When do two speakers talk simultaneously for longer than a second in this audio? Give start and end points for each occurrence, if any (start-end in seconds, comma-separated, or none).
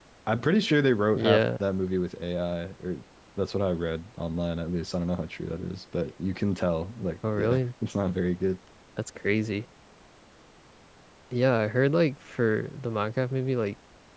none